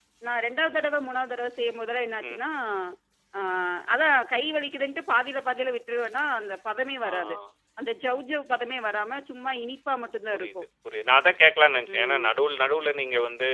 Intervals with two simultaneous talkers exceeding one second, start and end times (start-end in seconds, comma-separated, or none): none